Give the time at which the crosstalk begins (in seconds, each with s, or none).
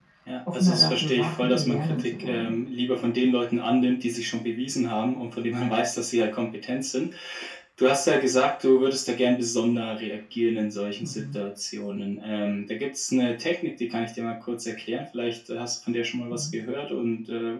0.5 s